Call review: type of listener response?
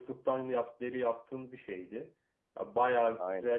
listening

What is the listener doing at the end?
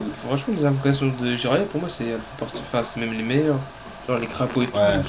listening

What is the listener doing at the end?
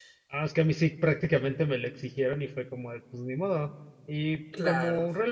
listening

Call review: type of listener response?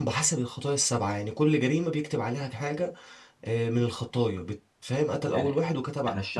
taking over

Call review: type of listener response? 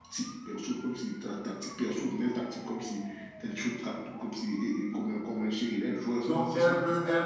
taking over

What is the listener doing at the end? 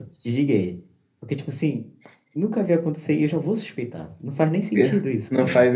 taking over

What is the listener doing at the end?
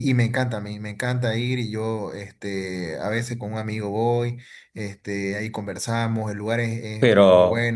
taking over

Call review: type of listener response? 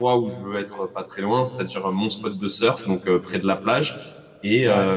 listening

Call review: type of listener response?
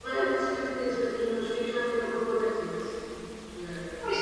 taking over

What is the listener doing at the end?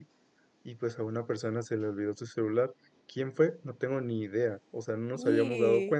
listening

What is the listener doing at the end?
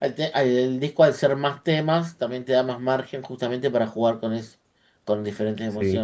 listening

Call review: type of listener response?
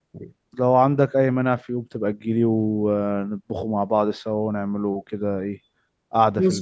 taking over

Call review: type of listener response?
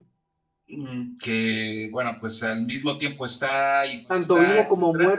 taking over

